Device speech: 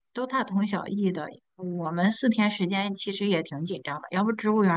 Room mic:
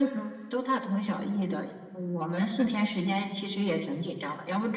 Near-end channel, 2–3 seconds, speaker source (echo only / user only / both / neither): echo only